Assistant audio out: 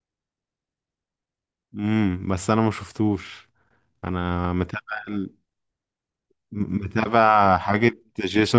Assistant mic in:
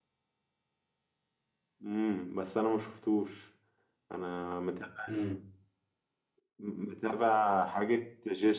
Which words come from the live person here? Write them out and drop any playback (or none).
امم